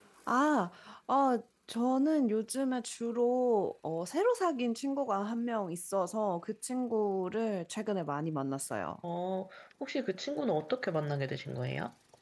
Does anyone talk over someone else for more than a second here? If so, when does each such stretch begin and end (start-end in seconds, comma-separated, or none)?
none